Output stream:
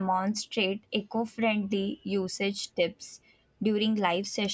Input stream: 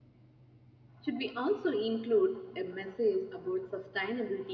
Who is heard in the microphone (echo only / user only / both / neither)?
user only